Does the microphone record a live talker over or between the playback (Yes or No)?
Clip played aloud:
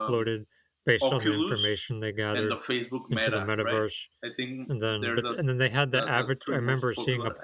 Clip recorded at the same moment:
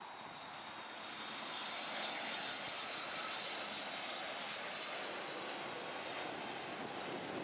No